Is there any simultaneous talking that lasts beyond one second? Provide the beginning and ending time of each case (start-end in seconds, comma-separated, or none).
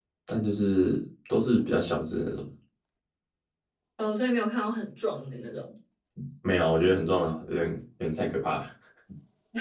none